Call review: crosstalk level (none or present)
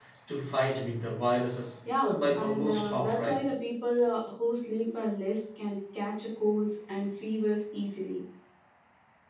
present